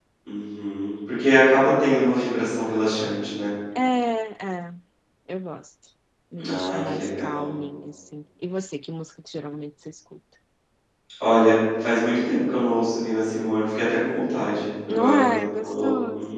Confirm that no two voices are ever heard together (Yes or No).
No